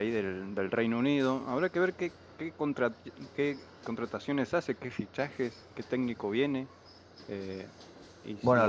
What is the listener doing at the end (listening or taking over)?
taking over